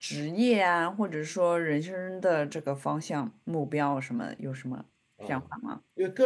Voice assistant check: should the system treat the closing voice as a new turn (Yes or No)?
Yes